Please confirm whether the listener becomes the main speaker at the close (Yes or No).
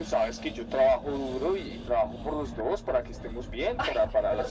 Yes